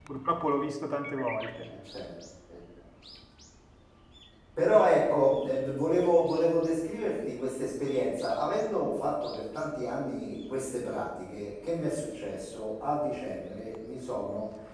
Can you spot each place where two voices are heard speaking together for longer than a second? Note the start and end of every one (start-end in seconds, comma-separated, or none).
none